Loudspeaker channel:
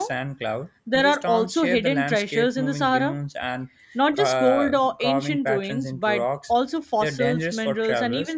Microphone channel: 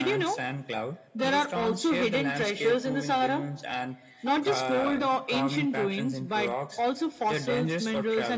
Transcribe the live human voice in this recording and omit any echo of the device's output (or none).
none